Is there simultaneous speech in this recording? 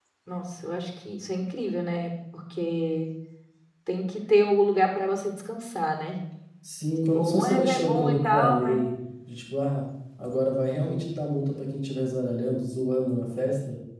Yes, from 7.2 s

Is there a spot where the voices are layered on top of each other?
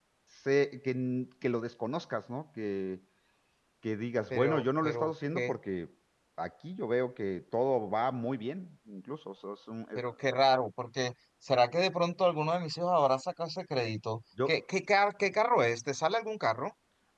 Yes, from 4.3 s

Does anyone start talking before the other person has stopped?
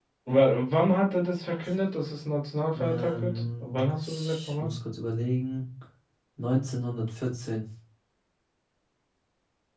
Yes, from 2.6 s

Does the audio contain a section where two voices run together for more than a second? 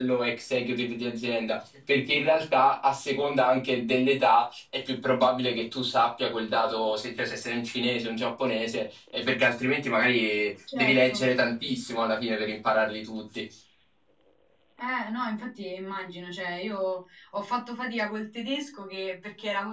No

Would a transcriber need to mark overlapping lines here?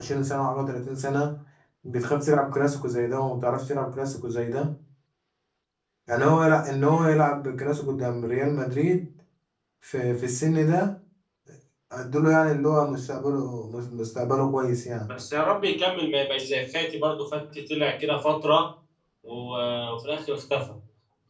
No

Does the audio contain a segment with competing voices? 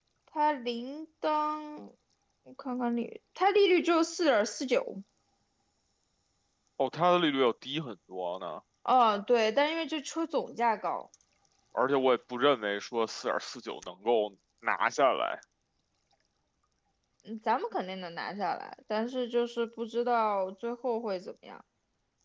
No

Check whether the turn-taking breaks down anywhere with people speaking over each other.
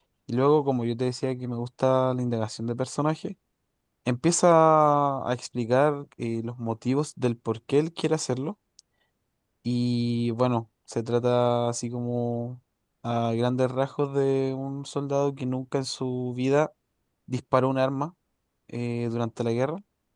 No

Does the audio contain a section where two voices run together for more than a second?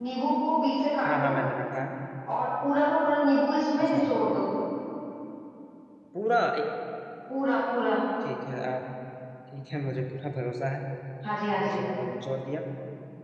No

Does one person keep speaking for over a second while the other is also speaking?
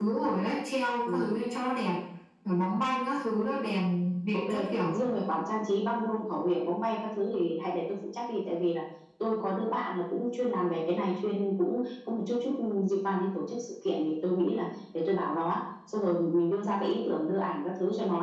No

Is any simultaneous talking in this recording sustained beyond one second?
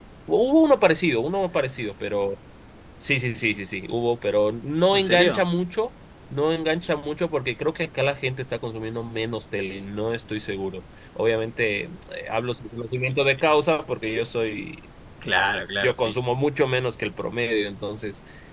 No

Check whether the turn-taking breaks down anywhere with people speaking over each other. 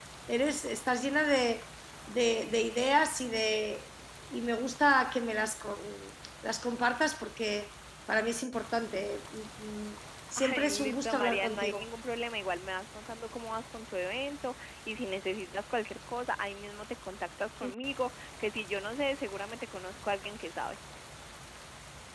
Yes, from 10.4 s

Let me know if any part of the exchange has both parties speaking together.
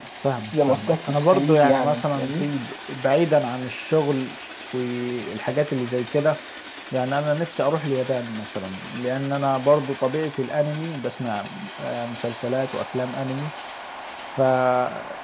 Yes, from 0.5 s

